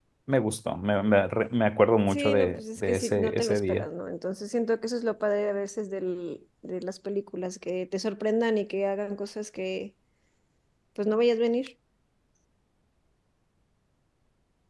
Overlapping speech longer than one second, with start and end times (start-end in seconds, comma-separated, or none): 2.1-3.9